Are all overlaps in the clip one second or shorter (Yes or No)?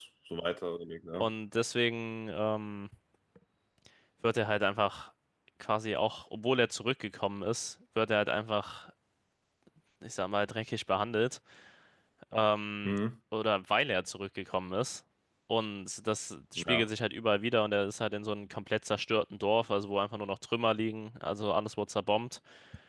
Yes